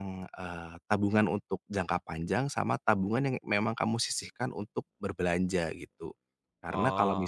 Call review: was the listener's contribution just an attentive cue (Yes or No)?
Yes